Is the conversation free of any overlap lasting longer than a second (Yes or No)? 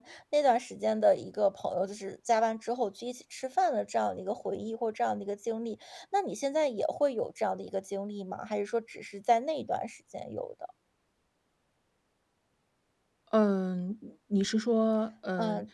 Yes